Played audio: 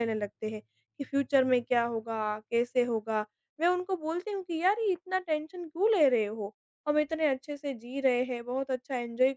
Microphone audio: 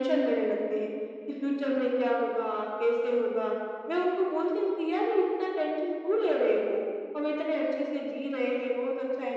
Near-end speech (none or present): none